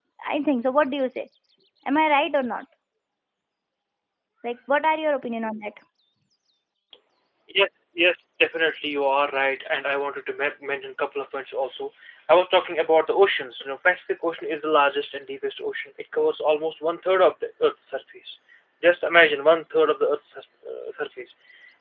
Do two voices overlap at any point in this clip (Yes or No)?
No